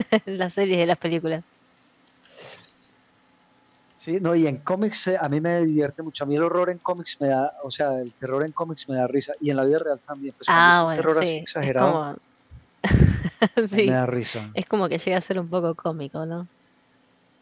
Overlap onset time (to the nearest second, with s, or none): 11 s